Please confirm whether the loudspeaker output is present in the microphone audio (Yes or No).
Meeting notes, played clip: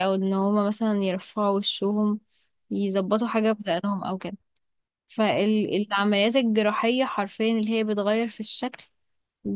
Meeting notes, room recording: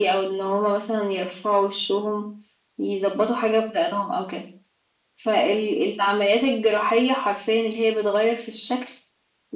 Yes